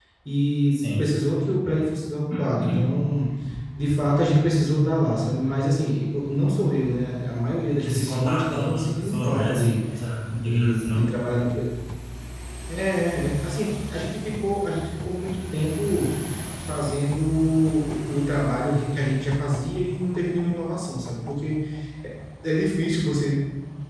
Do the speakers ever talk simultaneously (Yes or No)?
Yes